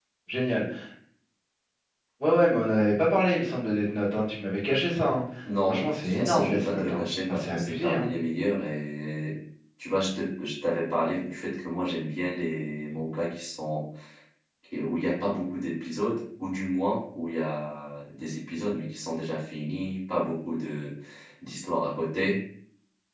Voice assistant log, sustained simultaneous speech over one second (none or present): present